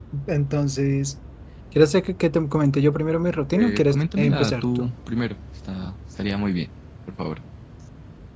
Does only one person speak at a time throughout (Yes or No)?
No